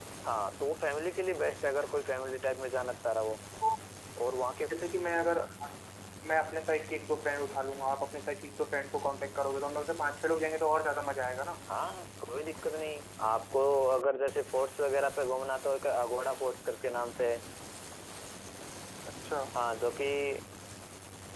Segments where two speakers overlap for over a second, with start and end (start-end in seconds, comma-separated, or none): none